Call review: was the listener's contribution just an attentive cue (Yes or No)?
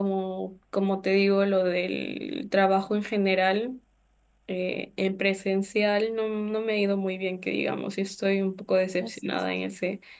Yes